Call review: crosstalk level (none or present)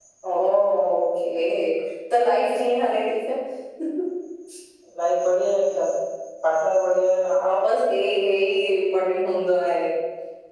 none